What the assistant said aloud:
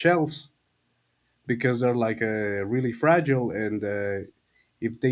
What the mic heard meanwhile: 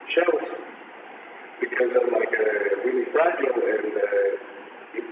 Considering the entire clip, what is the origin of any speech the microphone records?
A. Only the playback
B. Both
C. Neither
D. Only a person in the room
A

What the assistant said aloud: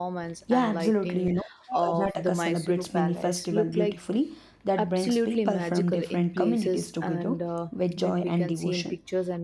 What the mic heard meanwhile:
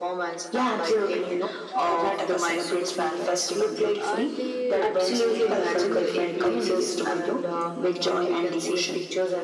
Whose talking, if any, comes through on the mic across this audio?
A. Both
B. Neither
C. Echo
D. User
A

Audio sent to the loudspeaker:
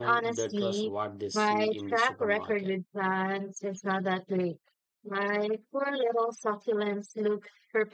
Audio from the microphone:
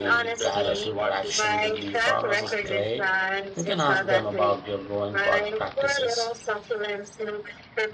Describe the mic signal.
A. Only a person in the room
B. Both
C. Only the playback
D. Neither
B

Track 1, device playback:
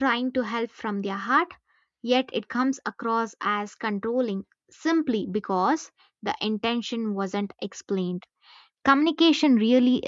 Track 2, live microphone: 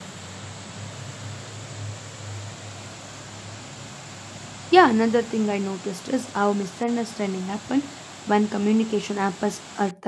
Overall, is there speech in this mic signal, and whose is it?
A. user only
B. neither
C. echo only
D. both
A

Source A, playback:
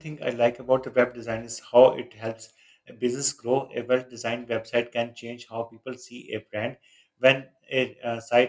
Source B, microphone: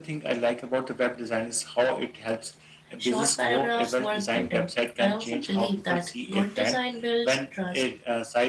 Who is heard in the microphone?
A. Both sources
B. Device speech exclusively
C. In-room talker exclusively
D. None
A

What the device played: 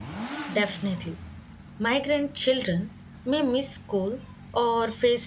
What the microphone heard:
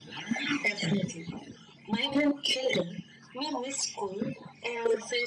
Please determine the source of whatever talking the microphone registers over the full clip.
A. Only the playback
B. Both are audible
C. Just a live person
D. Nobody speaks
A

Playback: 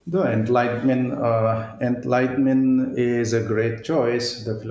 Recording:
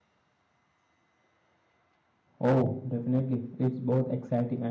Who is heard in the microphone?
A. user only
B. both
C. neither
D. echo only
A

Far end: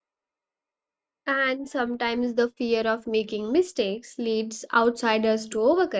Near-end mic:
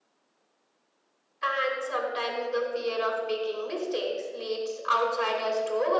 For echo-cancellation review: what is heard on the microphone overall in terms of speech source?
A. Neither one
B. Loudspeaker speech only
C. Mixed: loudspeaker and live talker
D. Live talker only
B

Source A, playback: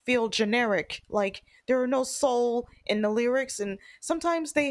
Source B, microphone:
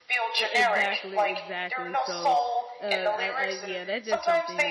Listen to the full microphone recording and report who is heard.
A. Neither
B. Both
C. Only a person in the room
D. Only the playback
B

